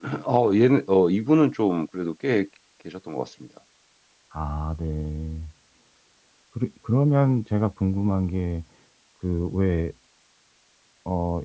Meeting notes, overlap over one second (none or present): none